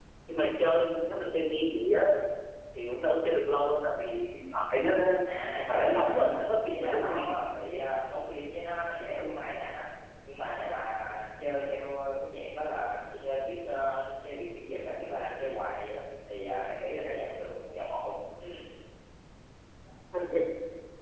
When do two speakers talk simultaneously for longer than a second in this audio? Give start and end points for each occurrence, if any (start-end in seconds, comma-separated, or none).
5.6-7.3